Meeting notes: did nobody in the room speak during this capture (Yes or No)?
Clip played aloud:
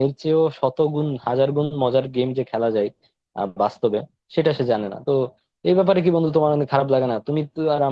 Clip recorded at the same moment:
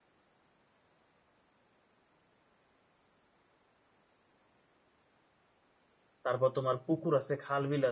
No